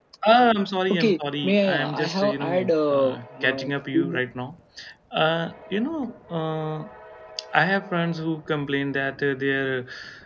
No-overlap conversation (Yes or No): No